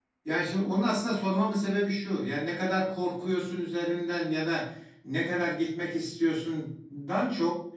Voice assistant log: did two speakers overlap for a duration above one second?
No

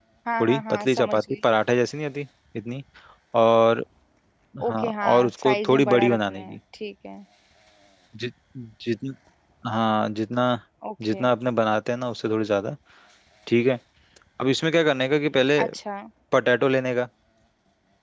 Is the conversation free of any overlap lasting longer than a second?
No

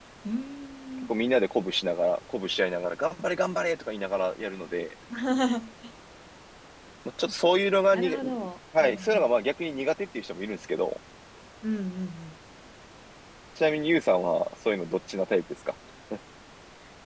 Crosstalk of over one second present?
No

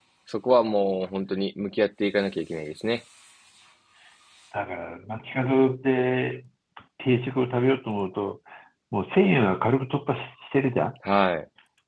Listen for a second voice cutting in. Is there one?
No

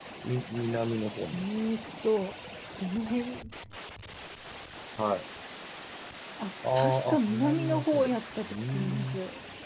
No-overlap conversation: No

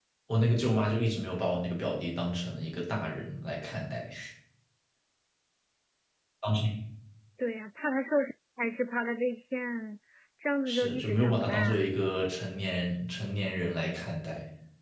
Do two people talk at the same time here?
Yes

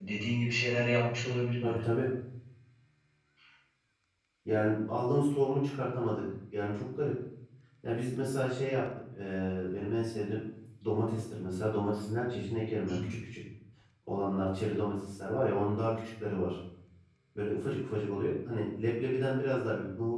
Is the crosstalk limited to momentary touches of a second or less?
Yes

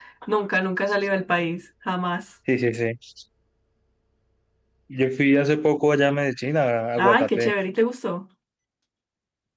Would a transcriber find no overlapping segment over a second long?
Yes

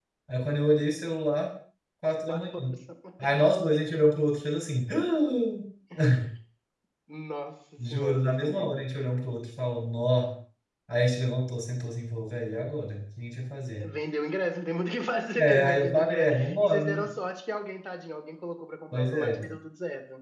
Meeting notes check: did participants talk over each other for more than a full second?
Yes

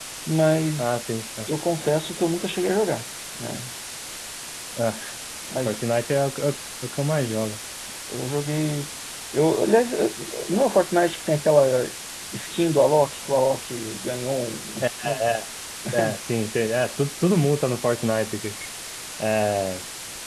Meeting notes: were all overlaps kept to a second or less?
Yes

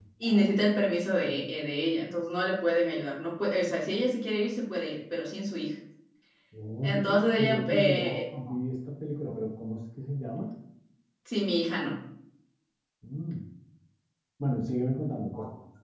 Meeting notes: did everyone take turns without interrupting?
No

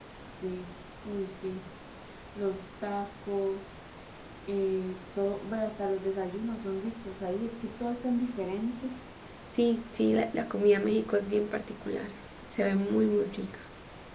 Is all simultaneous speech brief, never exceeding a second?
Yes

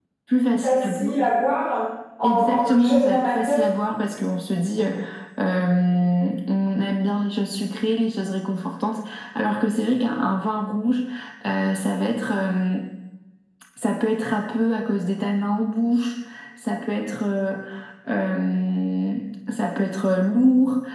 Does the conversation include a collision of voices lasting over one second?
Yes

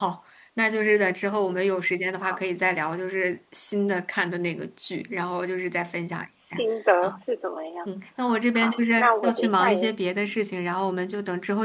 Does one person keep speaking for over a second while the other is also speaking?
Yes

